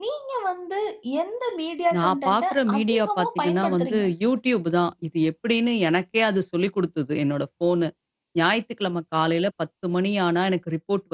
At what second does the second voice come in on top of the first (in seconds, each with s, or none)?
2.0 s